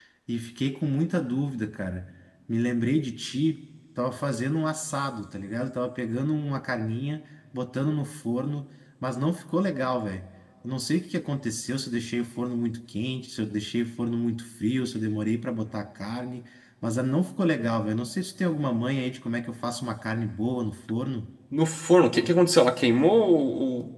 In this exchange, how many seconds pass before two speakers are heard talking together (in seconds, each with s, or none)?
none